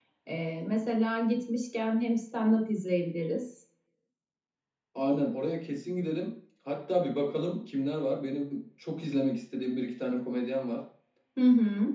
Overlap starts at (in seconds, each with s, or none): none